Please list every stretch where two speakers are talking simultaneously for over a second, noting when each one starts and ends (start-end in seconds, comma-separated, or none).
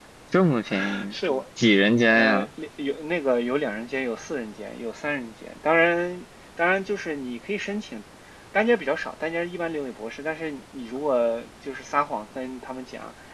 none